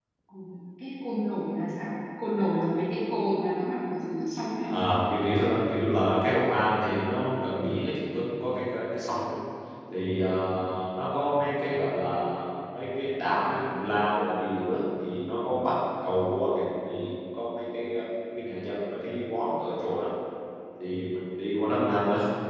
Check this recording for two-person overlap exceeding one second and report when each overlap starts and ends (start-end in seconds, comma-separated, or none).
none